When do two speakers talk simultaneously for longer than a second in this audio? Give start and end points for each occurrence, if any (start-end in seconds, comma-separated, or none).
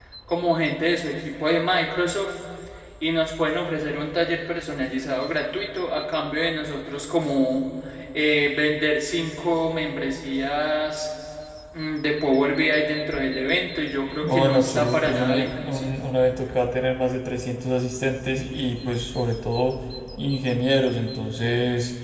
14.2-15.9